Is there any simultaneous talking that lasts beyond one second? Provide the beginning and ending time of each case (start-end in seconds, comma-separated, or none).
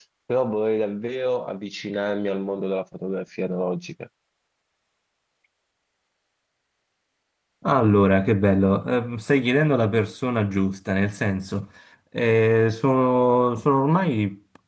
none